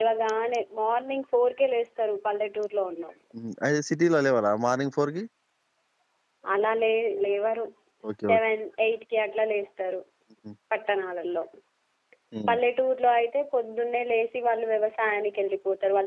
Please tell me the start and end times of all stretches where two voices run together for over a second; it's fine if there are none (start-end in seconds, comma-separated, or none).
none